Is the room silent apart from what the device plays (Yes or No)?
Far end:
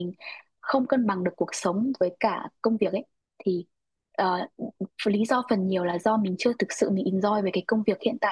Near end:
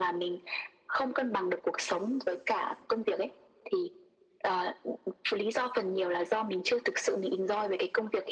Yes